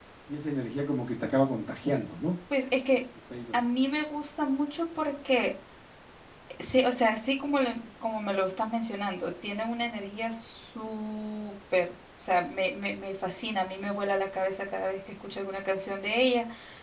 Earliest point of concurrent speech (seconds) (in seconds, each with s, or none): none